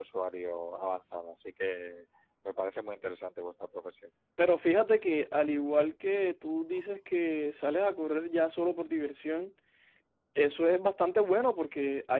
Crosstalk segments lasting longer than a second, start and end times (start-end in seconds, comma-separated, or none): none